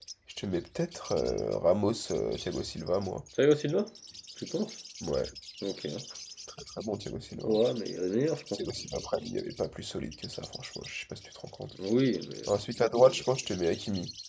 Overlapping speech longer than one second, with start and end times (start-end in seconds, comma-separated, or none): none